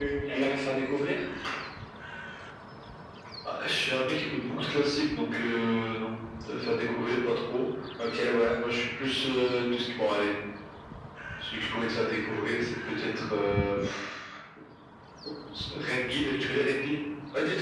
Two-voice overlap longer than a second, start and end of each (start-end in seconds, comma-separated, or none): none